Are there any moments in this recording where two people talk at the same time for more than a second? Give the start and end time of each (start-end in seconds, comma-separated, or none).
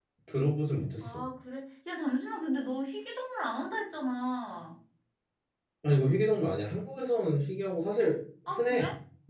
none